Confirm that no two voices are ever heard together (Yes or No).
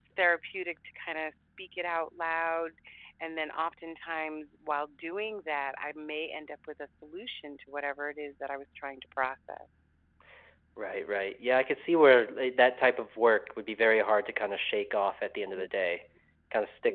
Yes